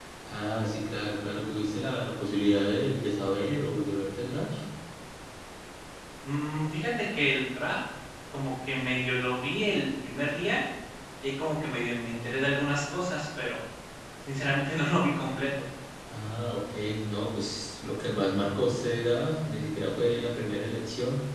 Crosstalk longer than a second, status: none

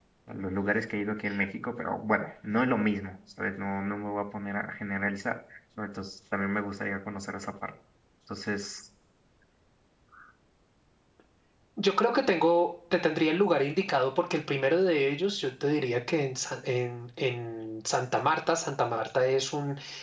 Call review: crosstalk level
none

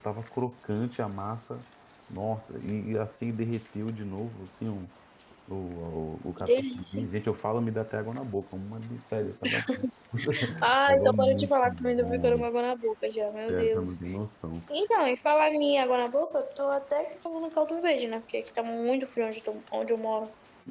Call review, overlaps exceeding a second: present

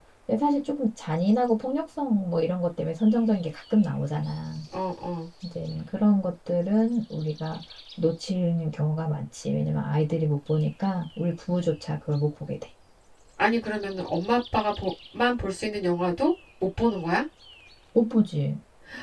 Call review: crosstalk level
none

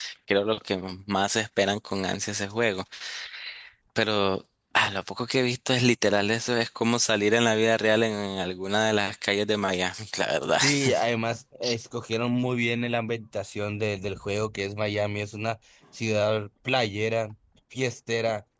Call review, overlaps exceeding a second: none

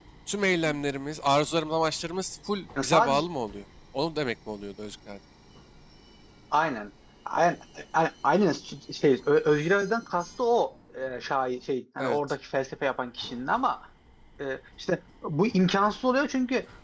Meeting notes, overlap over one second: none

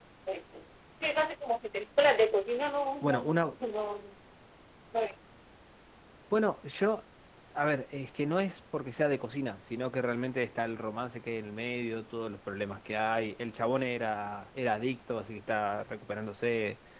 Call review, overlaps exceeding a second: none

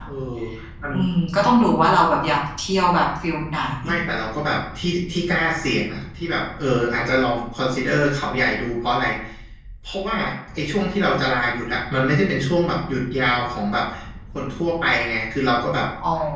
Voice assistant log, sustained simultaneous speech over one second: none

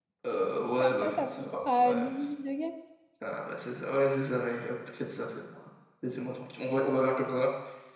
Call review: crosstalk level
present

